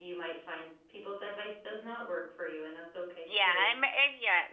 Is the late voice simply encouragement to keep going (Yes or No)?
No